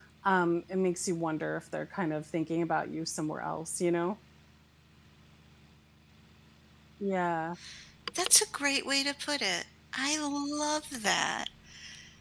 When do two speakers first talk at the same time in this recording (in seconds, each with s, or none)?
none